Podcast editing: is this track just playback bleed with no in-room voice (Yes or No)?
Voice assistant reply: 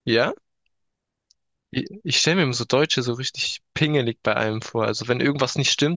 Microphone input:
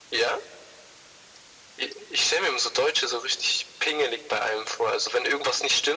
Yes